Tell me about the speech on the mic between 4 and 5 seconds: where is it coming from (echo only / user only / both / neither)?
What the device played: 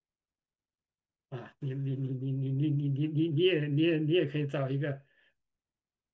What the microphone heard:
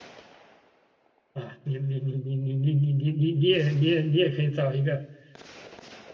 echo only